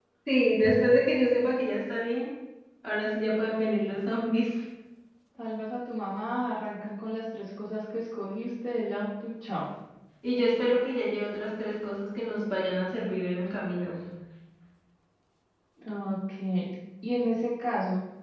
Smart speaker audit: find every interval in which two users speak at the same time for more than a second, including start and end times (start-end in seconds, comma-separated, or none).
none